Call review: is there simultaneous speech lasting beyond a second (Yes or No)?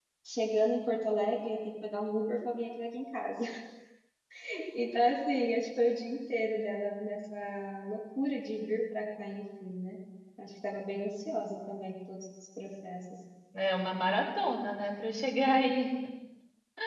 No